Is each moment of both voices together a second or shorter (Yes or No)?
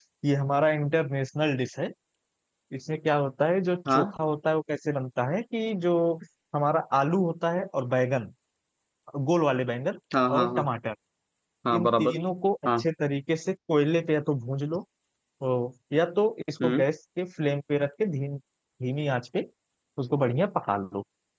Yes